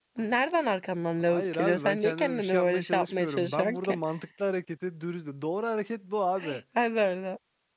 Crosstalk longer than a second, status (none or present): present